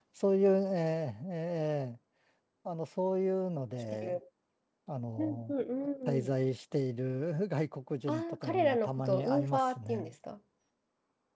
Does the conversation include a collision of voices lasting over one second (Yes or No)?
Yes